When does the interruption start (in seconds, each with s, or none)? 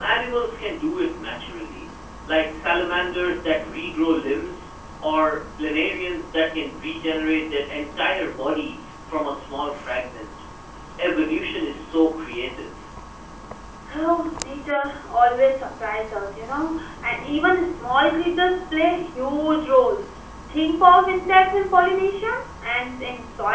none